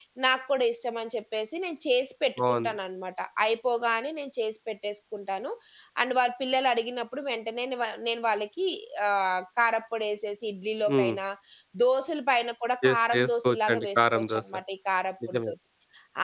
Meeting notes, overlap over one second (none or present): present